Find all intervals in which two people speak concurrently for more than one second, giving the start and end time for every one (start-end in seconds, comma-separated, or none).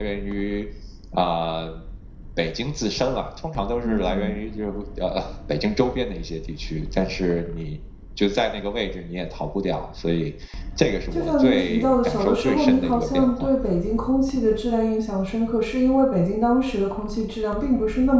11.1-13.5